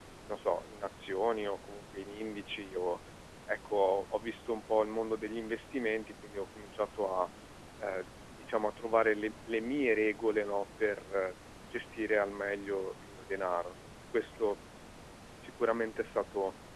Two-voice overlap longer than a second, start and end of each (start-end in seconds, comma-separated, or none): none